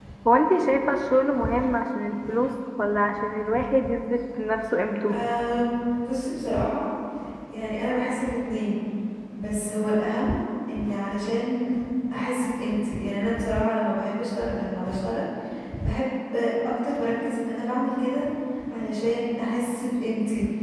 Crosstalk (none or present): none